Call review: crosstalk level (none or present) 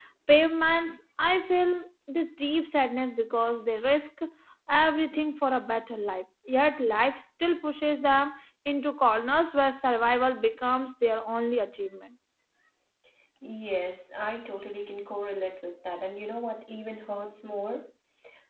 none